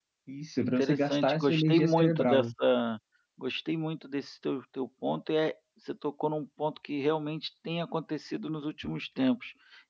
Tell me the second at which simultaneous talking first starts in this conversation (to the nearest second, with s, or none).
1 s